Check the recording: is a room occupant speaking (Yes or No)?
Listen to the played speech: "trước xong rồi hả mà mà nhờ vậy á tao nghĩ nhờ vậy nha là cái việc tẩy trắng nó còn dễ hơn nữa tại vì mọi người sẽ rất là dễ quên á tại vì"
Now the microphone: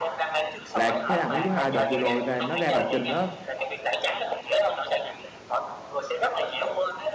Yes